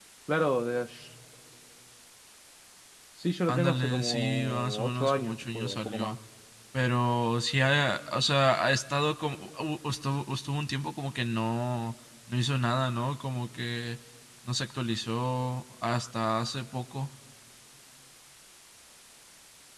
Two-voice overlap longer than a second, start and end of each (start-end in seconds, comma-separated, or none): 3.5-6.2